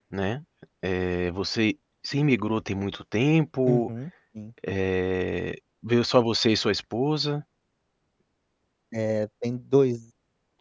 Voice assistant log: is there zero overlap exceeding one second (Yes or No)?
Yes